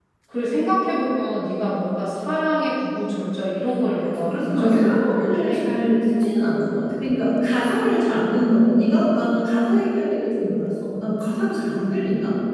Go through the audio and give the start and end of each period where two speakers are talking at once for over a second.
4.0-5.7

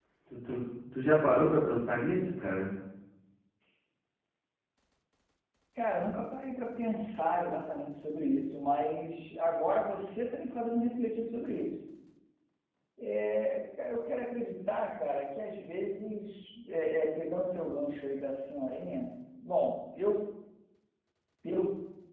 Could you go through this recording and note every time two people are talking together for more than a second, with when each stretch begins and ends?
none

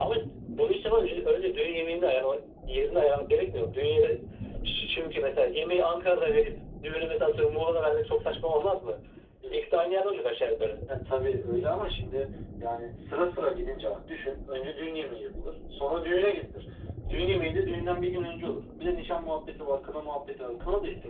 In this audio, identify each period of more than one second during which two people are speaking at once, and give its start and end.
none

